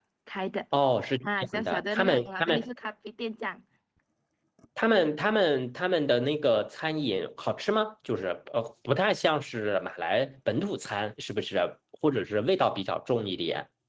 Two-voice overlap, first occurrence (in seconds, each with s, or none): 1.2 s